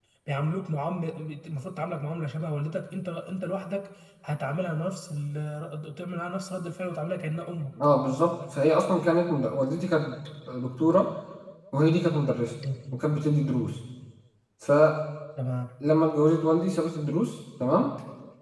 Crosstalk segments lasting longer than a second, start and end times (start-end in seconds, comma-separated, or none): none